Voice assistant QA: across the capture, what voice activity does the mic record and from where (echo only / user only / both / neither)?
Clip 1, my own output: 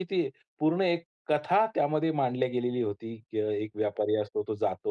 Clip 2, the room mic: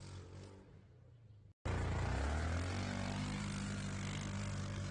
neither